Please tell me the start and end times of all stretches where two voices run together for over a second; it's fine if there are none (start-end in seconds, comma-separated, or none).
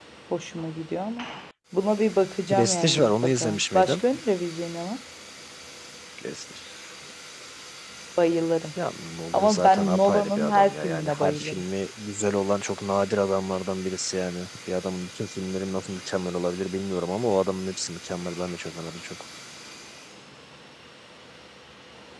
2.5-4.0, 9.3-11.6